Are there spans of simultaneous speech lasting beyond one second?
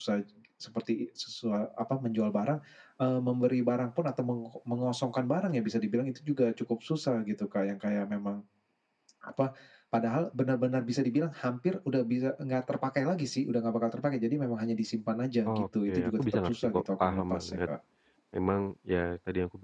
Yes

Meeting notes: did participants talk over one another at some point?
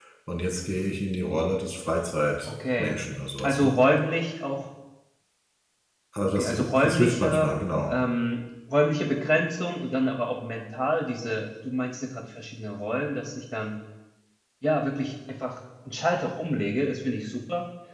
Yes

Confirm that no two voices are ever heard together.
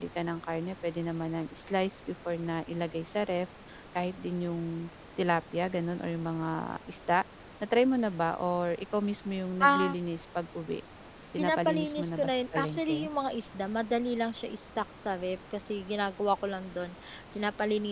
No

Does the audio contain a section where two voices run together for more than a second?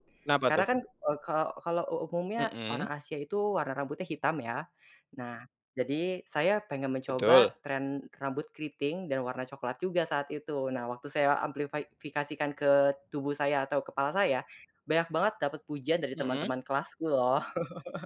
No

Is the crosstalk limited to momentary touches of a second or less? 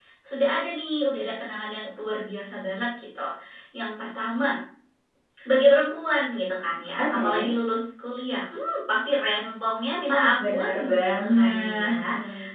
No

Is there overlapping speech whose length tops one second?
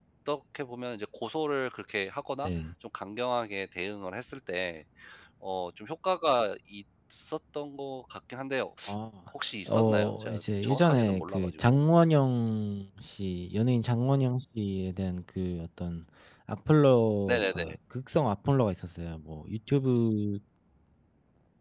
Yes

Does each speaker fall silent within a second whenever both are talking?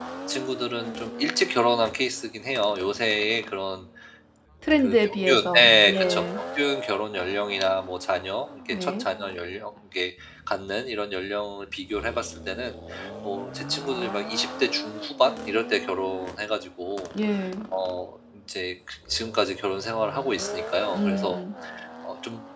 No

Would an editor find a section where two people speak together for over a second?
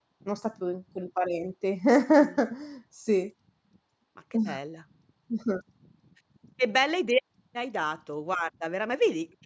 No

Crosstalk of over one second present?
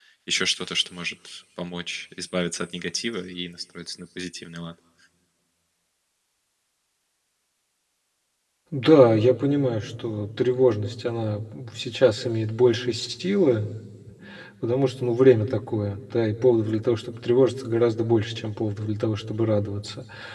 No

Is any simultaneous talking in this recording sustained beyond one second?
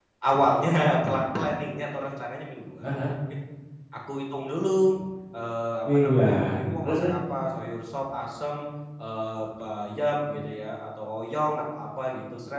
Yes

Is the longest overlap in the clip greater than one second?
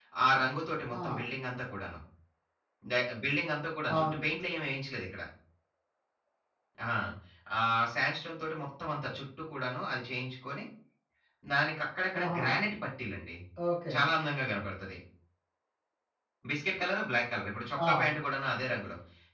No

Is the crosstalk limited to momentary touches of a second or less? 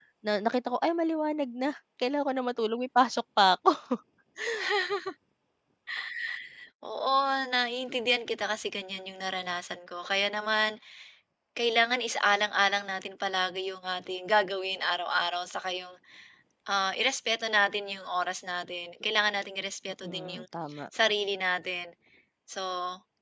Yes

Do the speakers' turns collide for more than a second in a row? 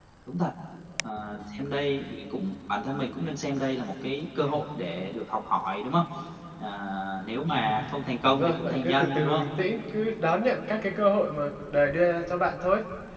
Yes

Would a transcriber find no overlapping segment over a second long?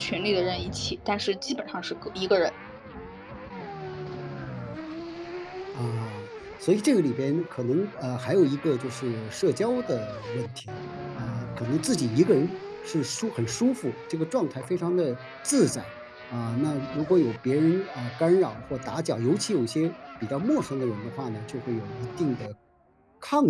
Yes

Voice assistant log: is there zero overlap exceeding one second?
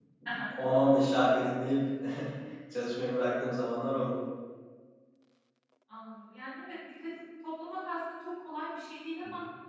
Yes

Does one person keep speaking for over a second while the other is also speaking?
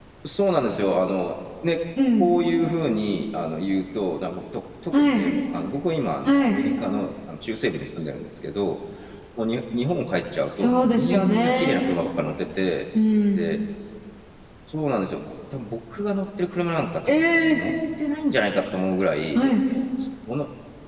Yes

